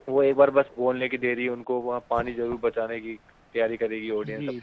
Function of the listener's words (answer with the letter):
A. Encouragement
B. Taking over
B